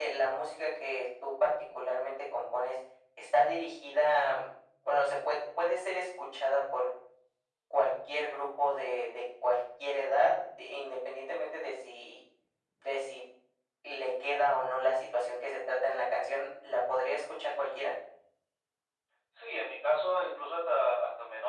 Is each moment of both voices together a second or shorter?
Yes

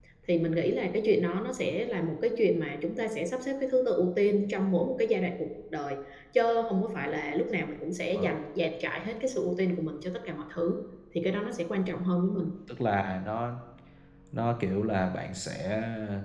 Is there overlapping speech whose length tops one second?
No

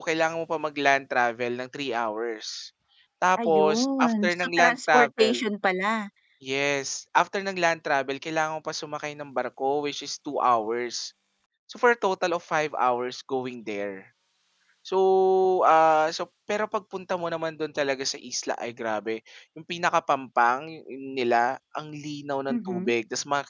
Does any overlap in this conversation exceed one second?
Yes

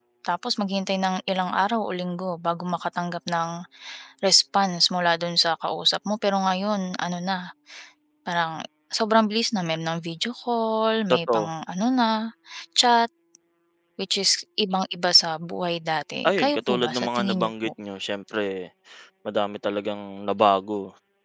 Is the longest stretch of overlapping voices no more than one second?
No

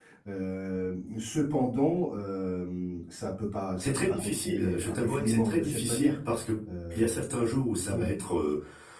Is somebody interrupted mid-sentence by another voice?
Yes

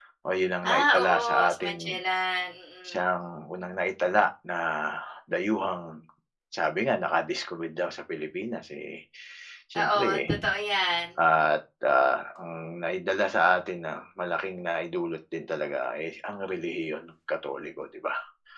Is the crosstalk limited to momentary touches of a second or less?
No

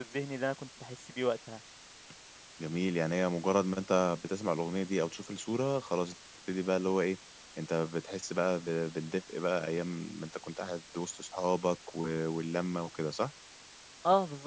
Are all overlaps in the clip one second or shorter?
Yes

